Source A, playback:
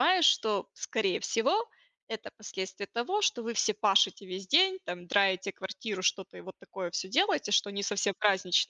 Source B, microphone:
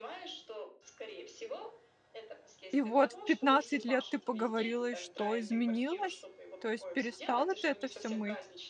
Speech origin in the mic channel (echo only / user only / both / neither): both